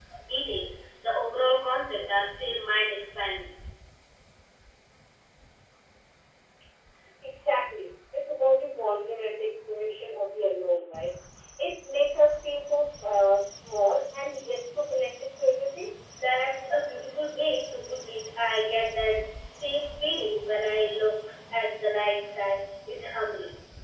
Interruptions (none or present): none